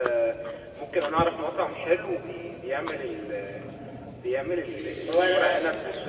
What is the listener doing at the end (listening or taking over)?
listening